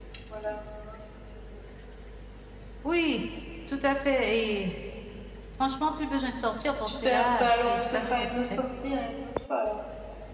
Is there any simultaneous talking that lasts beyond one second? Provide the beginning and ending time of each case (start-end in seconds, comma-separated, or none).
6.8-8.6